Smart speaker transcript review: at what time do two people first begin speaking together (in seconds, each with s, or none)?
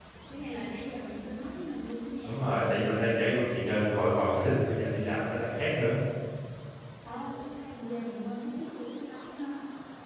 none